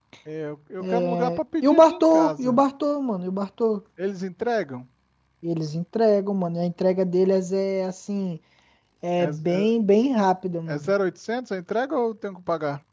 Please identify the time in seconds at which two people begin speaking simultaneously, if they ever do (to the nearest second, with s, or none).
1 s